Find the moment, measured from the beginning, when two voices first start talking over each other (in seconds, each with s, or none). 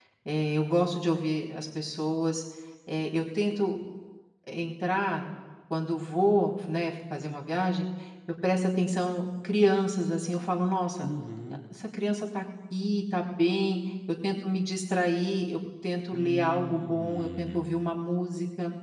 16.1 s